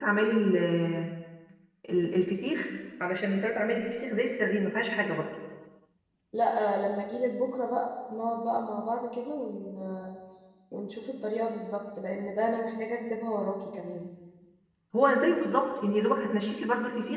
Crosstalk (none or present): none